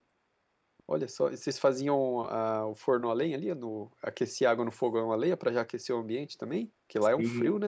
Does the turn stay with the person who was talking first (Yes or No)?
No